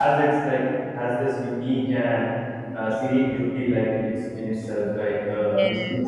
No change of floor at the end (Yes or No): No